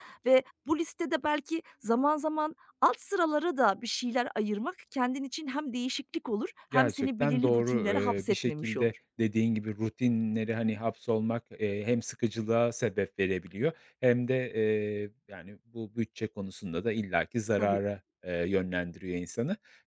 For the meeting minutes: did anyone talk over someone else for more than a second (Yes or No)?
Yes